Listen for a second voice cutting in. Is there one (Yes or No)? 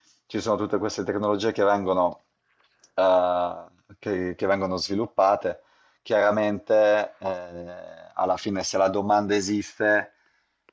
No